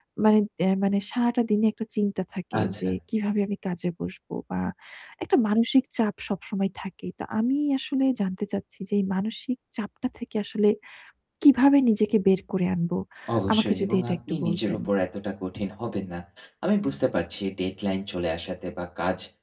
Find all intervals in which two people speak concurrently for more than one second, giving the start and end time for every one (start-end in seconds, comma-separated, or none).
13.5-14.8